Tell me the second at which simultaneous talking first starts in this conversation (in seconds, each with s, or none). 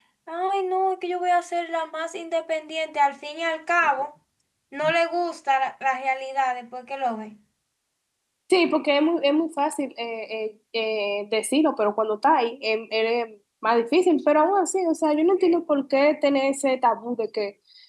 none